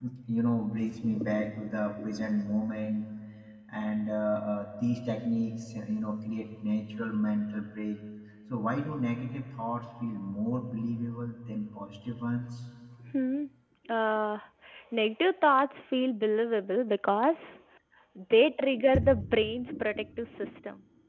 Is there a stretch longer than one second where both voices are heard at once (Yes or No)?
No